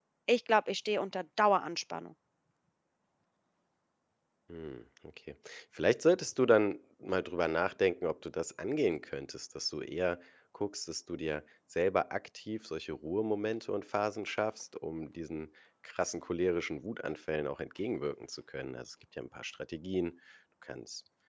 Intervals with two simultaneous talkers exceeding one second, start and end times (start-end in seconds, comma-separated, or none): none